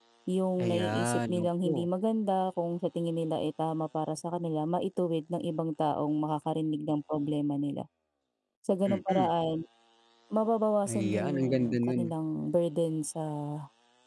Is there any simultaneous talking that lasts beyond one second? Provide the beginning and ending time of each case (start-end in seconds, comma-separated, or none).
0.6-1.9, 10.9-12.1